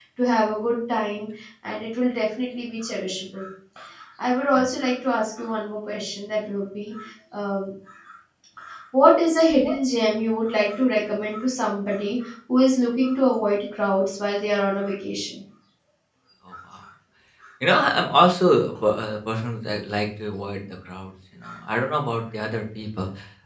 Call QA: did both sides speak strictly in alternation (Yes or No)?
Yes